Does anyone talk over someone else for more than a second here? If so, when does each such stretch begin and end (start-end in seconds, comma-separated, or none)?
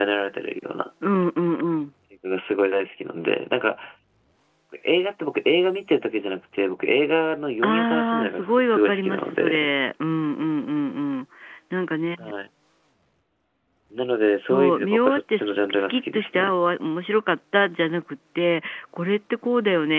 7.6-9.7, 14.5-16.5